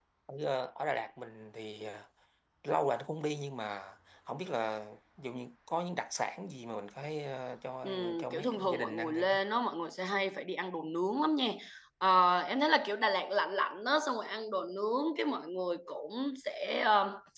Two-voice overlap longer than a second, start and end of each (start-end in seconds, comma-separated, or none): 7.8-9.2